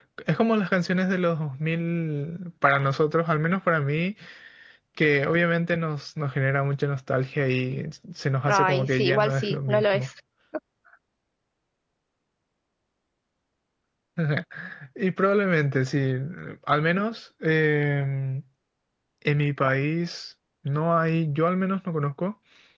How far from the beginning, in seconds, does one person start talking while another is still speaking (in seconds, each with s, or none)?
8.5 s